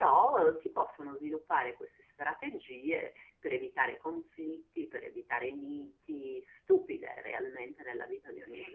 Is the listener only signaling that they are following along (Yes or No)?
No